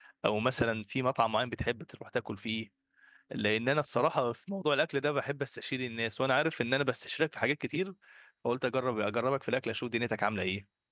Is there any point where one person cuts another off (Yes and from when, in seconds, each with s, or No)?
No